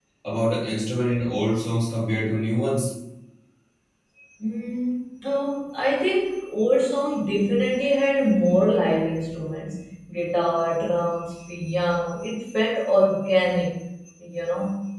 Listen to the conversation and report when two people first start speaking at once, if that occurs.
none

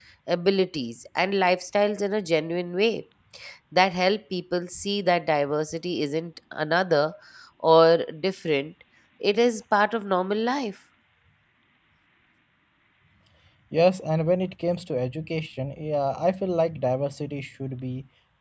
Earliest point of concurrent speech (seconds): none

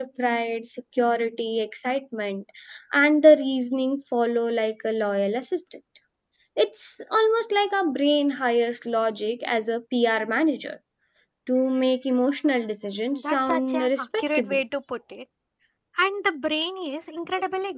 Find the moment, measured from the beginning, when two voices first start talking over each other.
13.1 s

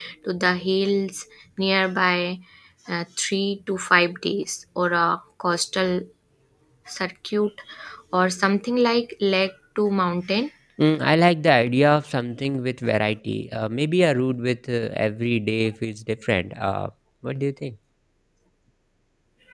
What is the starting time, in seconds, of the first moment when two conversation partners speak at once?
none

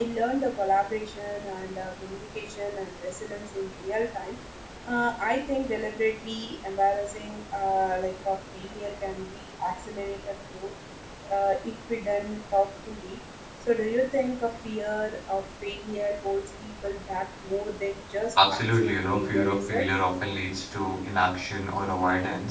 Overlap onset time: 18.4 s

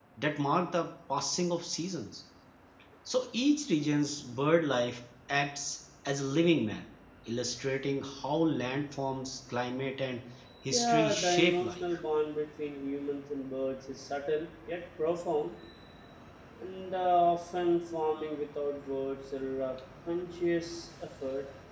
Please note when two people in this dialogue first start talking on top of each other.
10.7 s

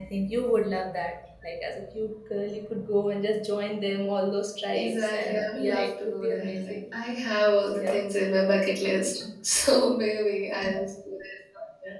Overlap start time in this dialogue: 4.7 s

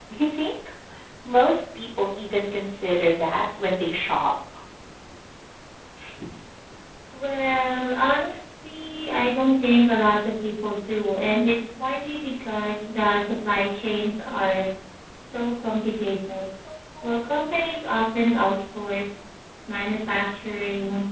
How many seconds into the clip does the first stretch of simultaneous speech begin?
none

